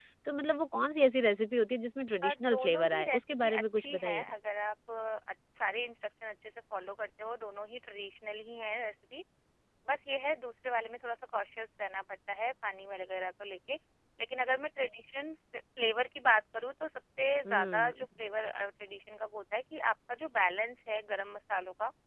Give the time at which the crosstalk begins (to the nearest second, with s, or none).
2 s